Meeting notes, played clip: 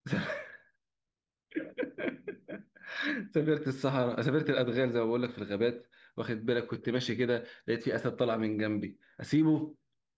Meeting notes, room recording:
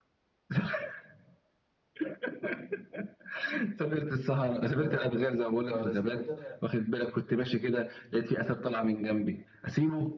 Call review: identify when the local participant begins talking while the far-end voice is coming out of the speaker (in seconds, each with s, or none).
4.7 s